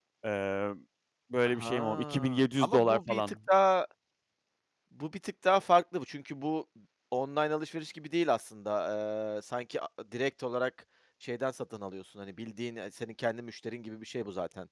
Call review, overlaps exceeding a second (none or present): present